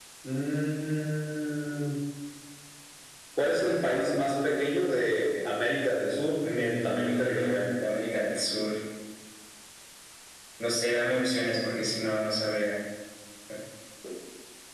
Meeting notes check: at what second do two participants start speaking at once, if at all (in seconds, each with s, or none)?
6.4 s